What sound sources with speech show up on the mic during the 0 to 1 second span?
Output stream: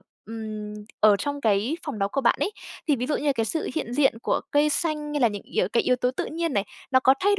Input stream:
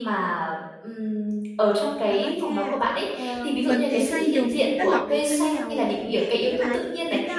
echo only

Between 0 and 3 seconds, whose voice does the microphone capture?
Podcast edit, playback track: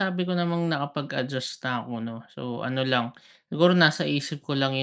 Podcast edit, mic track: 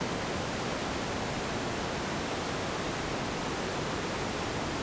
neither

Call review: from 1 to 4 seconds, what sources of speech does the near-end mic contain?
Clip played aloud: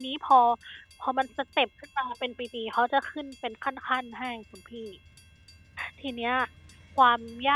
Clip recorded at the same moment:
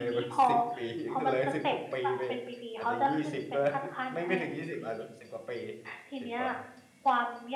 both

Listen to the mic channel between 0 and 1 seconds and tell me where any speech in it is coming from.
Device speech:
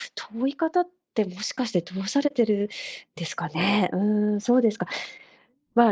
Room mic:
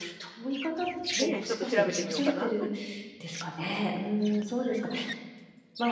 echo only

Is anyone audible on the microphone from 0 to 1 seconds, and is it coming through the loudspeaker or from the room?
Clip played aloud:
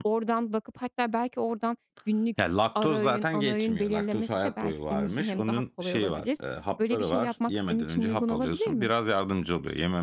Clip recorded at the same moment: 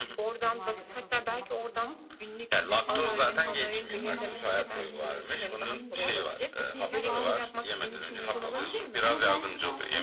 both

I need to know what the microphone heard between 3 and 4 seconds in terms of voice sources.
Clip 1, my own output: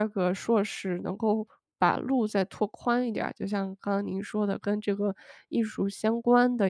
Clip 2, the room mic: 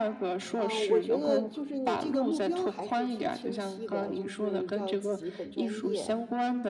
both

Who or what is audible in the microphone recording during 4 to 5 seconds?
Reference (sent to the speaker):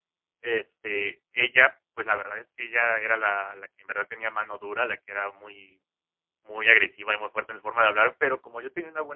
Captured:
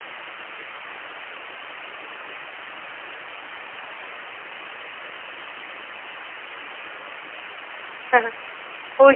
neither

